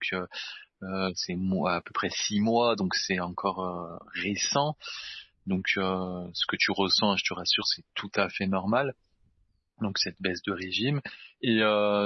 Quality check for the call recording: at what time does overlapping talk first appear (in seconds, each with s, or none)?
none